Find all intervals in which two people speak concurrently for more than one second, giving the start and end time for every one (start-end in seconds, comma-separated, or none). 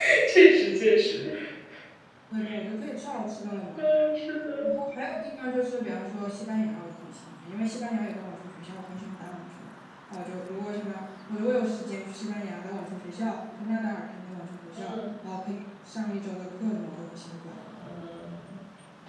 none